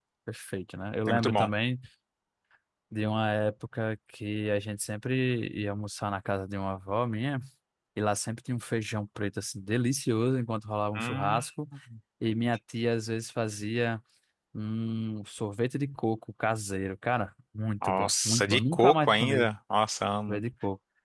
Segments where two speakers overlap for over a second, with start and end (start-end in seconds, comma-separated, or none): 17.8-19.5